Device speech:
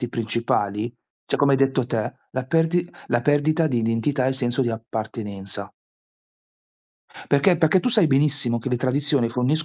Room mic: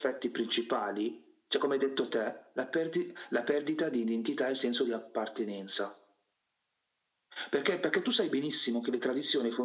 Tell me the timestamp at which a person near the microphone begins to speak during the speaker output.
none

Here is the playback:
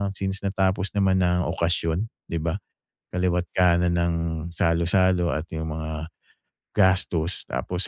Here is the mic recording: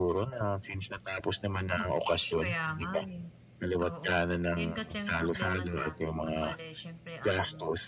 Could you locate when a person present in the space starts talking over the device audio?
1.7 s

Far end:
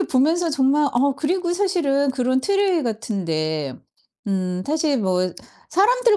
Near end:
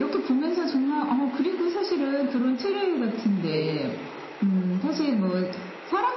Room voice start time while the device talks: 3.4 s

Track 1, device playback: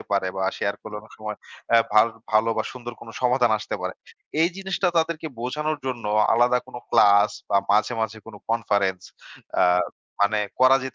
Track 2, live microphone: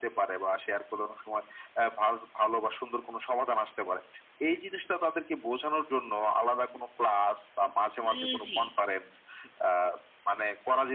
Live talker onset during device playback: 8.1 s

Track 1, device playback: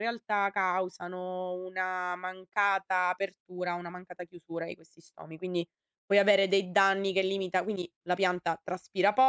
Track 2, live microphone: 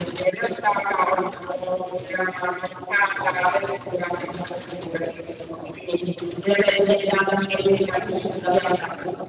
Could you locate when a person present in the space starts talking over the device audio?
none

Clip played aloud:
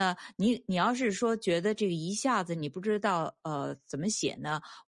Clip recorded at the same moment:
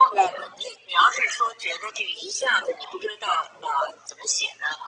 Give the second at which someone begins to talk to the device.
none

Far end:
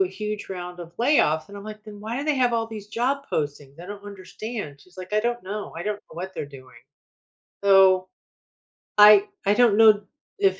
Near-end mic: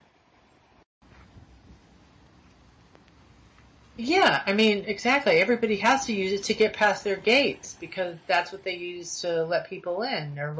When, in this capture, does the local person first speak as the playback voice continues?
4.0 s

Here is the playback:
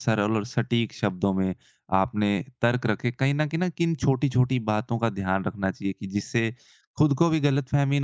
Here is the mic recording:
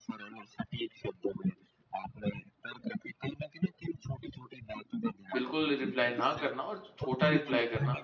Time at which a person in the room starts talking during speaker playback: 5.3 s

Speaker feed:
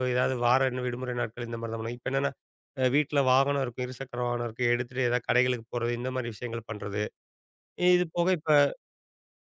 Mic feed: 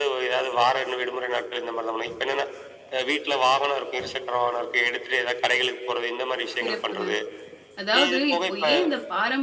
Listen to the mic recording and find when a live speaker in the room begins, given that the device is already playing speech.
6.6 s

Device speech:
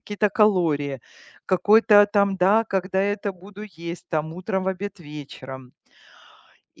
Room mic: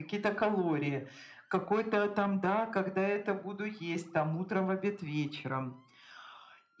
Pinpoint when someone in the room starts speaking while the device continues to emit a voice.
none

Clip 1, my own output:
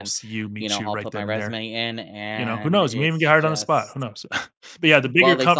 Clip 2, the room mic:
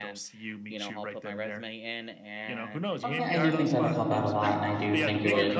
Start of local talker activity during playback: 3.0 s

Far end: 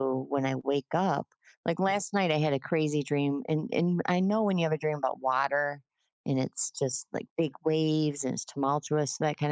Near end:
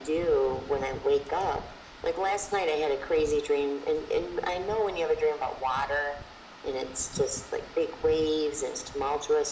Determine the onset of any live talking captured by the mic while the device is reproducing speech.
none

